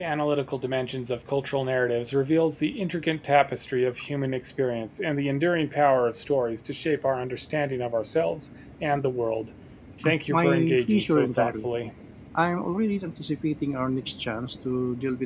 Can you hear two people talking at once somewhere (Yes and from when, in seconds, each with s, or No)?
Yes, from 10.3 s